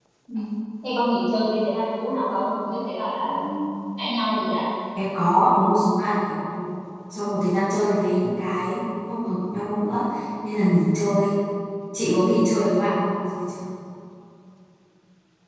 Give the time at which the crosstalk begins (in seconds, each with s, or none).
none